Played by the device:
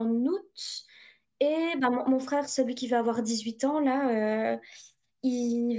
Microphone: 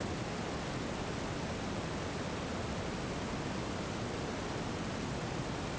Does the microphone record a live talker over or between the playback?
No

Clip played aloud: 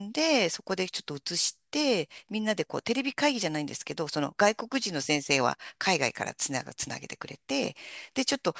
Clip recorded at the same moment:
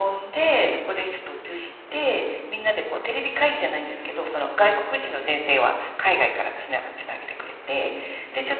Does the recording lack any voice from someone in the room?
Yes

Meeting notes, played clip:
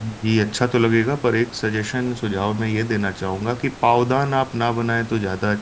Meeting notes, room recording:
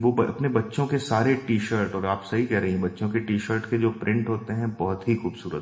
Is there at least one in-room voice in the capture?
Yes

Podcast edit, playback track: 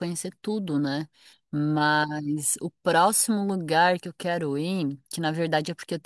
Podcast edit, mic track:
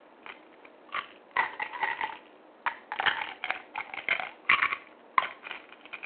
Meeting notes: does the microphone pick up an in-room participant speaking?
No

